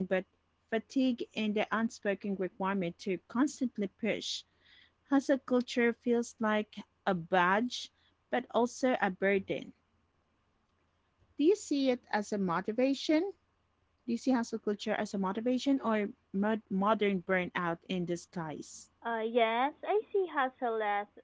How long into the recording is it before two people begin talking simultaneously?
none

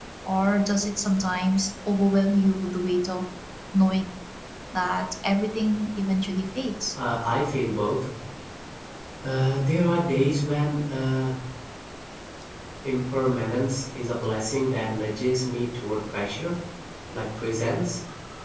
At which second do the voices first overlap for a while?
none

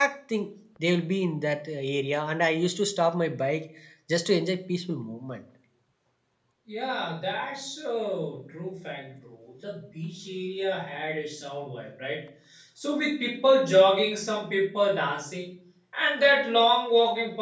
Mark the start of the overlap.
none

